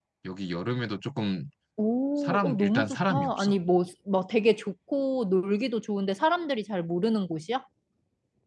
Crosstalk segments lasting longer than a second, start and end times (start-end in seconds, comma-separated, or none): 2.2-3.5